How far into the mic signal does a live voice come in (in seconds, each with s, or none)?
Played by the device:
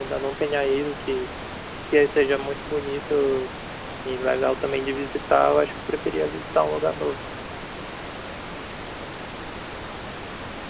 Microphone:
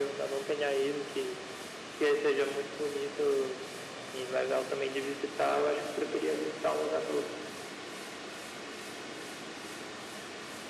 none